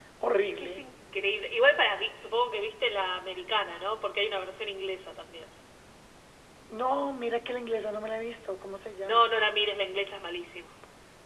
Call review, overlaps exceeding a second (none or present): none